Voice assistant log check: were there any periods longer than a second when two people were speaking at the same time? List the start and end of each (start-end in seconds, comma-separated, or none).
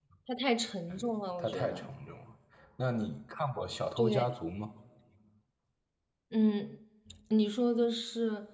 none